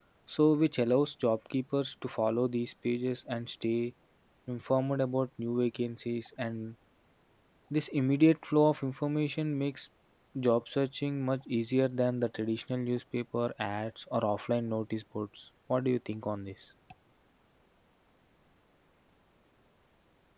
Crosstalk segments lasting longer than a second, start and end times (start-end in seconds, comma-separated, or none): none